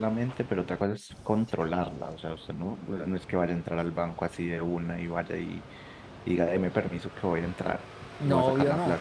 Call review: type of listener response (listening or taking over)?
taking over